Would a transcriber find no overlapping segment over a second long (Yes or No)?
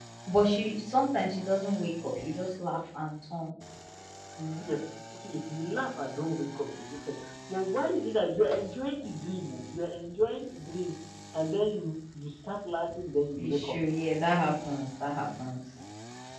Yes